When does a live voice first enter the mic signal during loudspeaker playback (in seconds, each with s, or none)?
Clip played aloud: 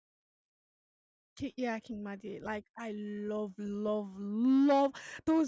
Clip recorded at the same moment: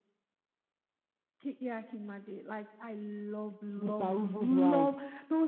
3.8 s